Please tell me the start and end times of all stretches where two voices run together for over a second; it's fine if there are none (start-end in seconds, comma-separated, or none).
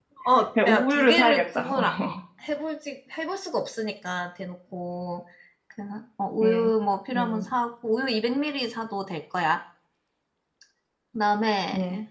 0.7-1.9